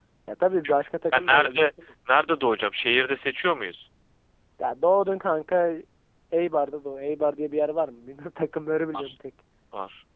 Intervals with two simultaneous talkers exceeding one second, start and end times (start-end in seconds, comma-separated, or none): none